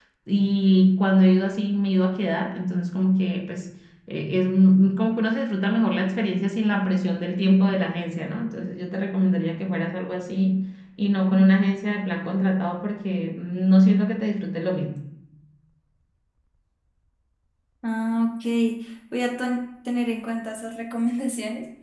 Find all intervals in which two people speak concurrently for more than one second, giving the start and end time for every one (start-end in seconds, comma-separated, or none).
none